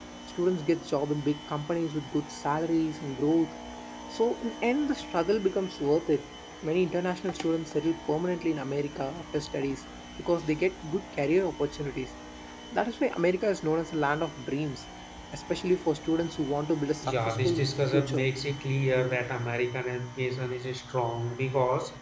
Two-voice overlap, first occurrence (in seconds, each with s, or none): 17.0 s